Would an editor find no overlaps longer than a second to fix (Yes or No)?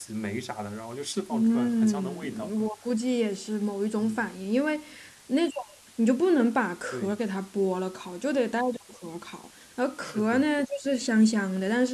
No